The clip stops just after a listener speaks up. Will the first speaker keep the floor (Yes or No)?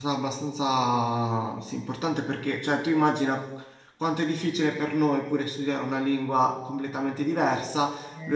Yes